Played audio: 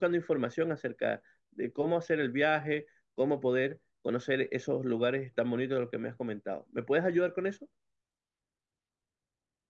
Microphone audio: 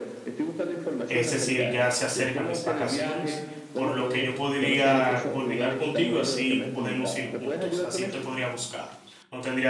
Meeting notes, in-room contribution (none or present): present